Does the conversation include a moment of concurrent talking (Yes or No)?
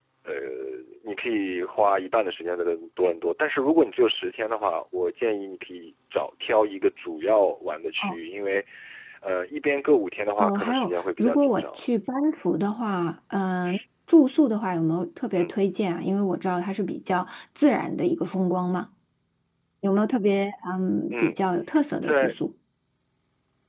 Yes